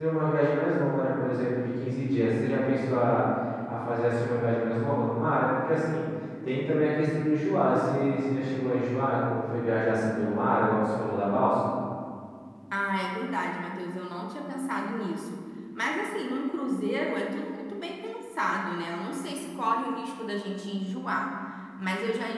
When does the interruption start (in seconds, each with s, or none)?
none